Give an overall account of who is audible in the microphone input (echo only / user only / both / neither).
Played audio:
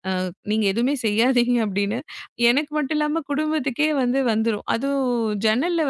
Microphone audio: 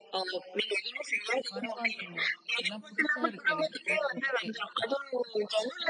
both